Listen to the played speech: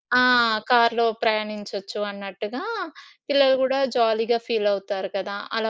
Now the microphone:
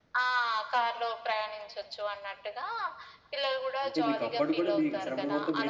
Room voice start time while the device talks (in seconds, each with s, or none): 3.8 s